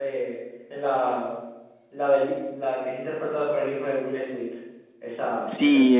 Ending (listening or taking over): taking over